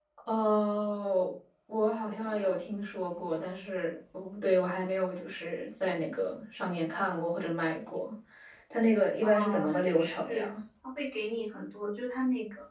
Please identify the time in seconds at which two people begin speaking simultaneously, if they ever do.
9.2 s

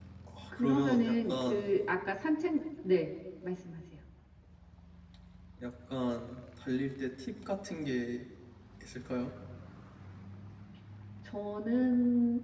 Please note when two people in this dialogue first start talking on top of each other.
0.5 s

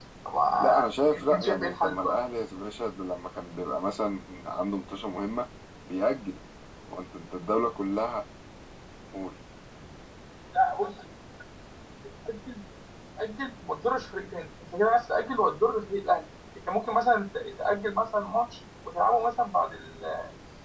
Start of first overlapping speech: 0.6 s

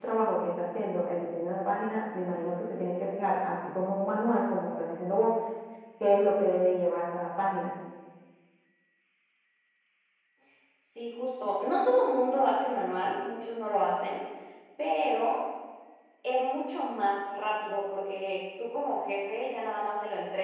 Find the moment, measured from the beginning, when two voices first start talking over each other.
none

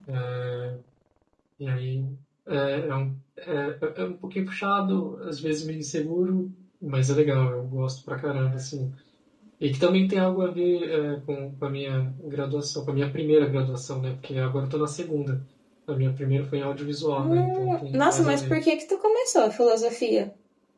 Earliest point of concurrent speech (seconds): 17.2 s

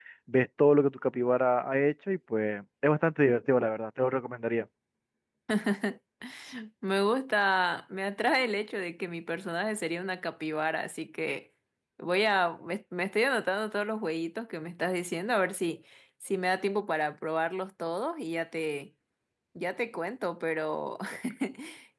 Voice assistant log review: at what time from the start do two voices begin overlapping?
none

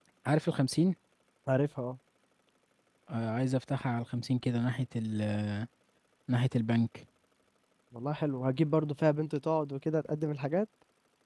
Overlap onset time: none

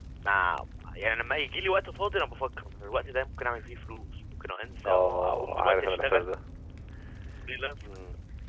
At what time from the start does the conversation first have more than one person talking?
4.8 s

